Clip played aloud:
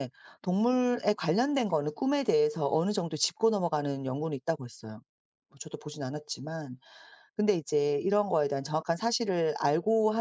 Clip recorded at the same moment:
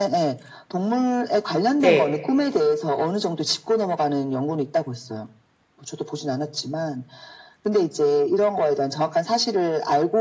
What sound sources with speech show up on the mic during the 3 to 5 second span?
echo only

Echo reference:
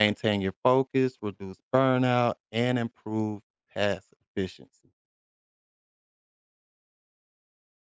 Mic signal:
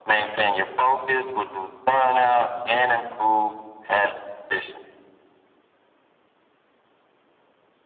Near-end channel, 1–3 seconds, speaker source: echo only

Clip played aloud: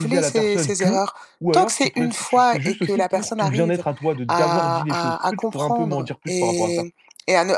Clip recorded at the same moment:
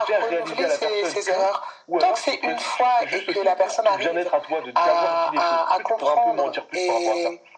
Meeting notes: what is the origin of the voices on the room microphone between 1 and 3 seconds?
echo only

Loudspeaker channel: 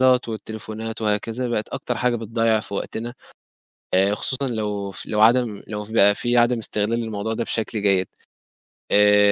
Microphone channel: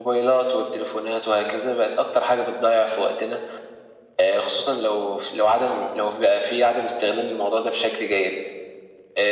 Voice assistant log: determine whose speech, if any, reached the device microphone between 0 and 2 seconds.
echo only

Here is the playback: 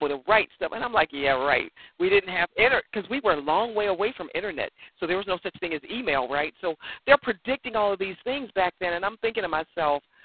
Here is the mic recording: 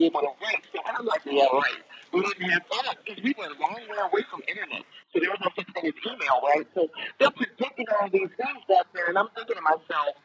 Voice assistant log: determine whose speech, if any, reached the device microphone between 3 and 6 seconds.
echo only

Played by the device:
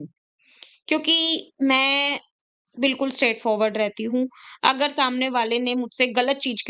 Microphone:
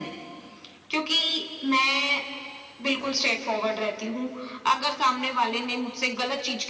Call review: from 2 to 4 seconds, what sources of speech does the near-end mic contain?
echo only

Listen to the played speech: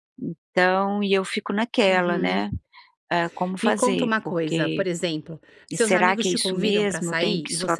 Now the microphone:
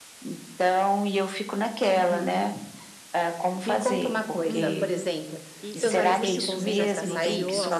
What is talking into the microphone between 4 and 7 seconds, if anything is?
both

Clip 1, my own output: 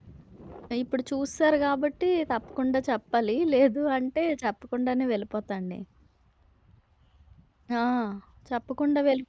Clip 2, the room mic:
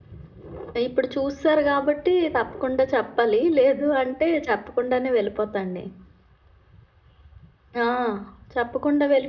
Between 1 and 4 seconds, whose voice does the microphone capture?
echo only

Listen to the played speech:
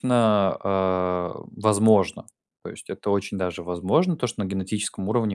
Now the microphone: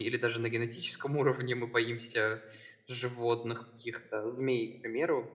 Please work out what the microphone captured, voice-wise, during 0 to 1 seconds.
user only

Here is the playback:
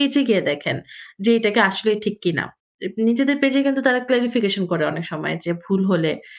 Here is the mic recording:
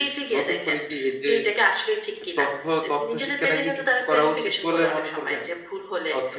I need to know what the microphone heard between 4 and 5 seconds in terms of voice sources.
both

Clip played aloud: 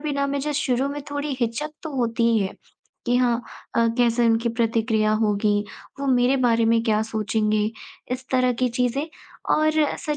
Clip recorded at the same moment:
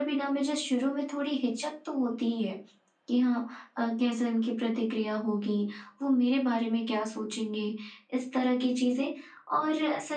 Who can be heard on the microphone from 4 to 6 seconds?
echo only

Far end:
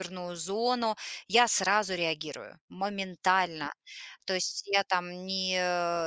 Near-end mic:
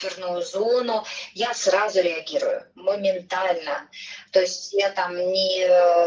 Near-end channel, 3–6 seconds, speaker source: echo only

